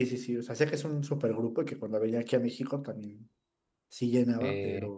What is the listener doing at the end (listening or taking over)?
taking over